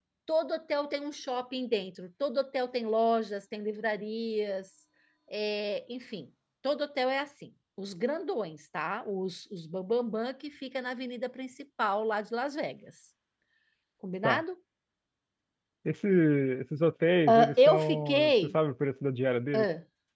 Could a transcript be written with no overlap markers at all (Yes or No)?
No